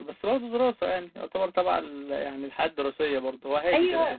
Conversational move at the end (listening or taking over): taking over